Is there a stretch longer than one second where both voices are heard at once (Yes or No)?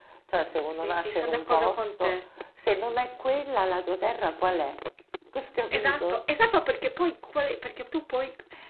Yes